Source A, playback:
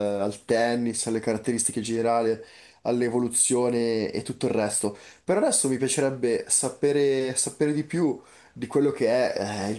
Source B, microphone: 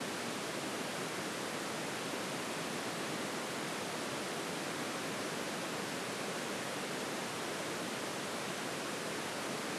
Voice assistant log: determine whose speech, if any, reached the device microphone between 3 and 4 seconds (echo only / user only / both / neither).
neither